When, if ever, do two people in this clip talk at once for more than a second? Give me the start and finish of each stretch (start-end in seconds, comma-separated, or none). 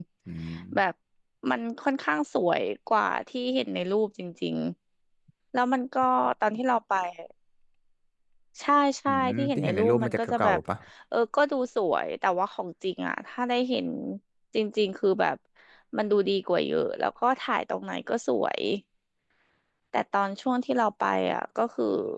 9.1-10.6